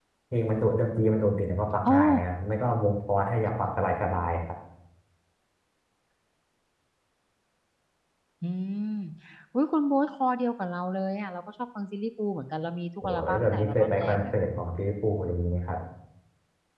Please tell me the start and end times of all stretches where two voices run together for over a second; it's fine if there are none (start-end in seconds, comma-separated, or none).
13.0-14.2